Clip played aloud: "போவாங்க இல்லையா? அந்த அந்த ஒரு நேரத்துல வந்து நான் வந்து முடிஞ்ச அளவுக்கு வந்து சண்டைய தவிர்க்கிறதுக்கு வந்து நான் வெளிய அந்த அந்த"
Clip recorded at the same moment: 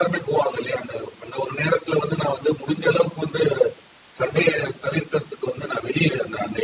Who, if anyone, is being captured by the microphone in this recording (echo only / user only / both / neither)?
echo only